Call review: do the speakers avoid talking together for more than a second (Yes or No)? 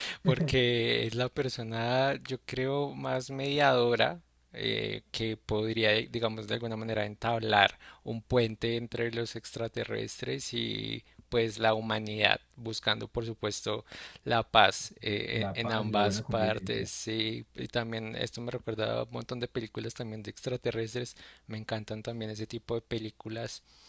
No